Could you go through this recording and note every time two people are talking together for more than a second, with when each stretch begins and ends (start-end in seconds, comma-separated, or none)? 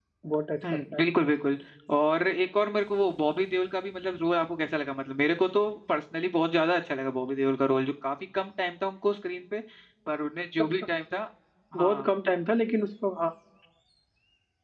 none